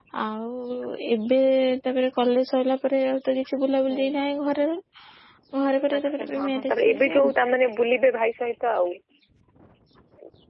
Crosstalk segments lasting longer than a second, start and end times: 6.0-7.3

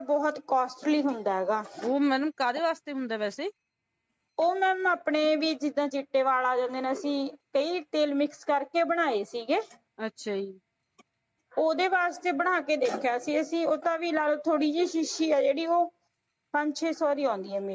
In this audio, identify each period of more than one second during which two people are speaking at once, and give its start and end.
none

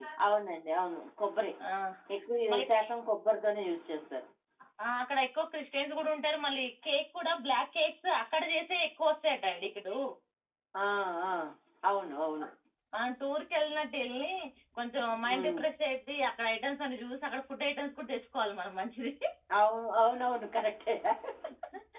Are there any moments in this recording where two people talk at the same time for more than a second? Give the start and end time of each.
none

